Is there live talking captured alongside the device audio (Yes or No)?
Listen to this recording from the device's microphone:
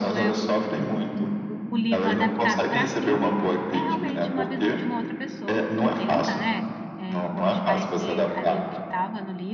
Yes